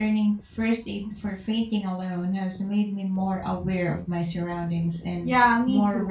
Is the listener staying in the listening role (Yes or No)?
No